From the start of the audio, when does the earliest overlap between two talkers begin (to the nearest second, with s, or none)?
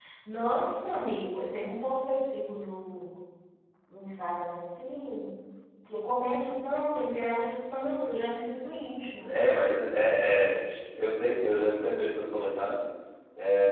none